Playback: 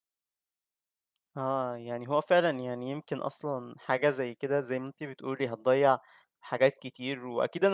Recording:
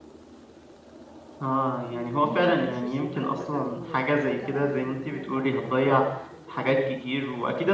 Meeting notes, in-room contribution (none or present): present